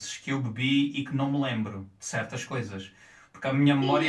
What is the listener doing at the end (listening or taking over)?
taking over